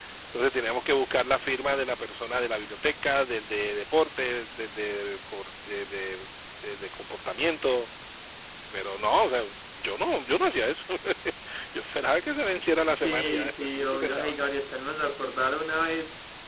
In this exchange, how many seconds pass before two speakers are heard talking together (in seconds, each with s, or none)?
12.9 s